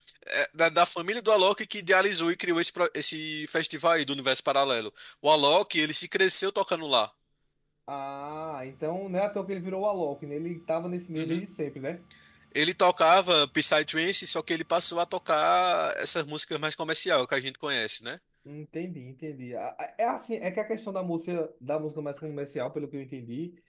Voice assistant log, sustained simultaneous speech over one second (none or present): none